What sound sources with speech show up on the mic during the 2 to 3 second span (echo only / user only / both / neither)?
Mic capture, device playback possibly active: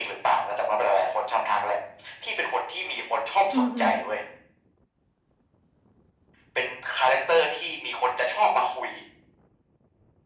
echo only